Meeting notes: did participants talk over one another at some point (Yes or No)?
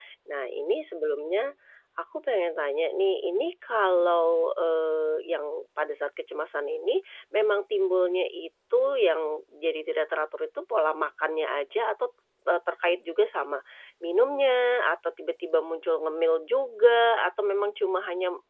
No